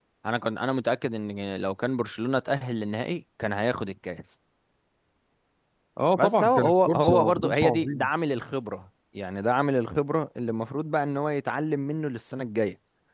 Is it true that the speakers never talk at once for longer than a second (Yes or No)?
No